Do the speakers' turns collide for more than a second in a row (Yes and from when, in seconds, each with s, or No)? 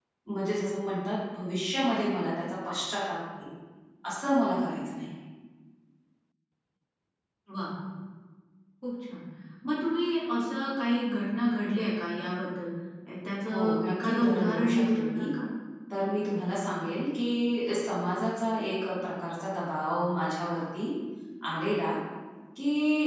Yes, from 13.5 s